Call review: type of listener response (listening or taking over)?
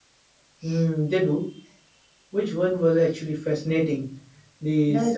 listening